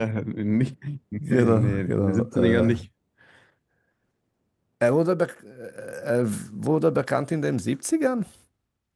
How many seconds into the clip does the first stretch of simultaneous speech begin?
1 s

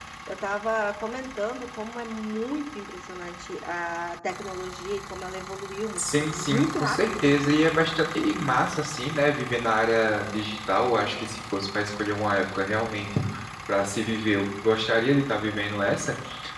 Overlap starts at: 6 s

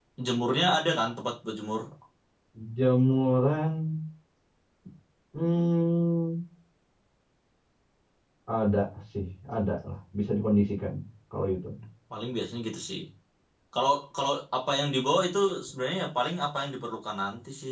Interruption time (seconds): none

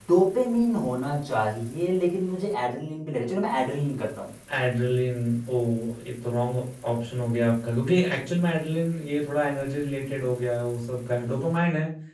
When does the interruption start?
none

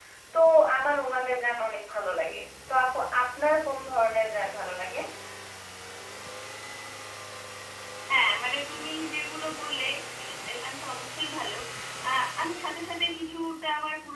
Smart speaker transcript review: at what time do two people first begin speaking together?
none

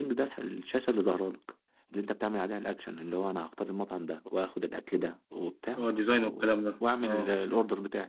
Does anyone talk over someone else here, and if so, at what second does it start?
6 s

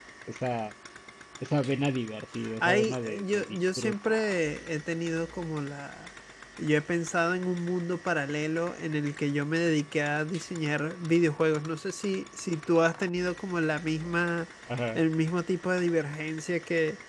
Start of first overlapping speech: 3 s

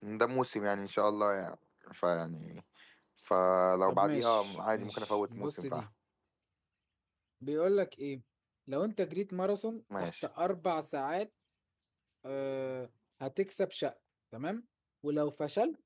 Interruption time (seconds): 4 s

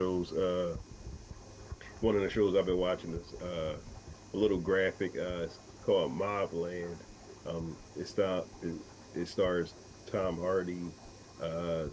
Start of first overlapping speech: none

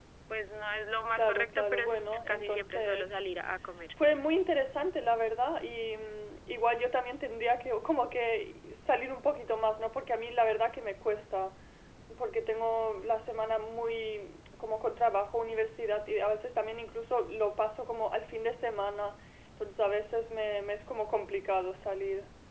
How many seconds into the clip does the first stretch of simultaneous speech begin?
1 s

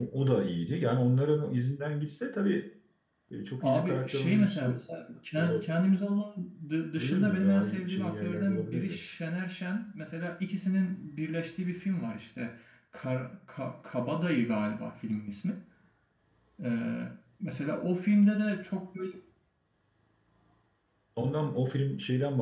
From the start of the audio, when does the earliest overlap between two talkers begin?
4 s

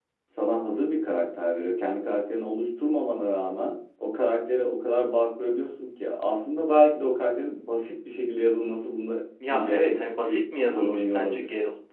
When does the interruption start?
9 s

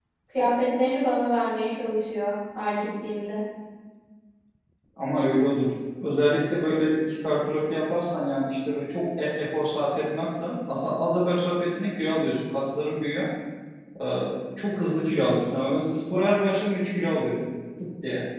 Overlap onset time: none

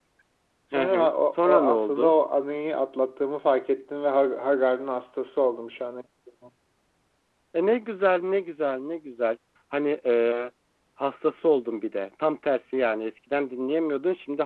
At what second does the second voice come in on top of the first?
1 s

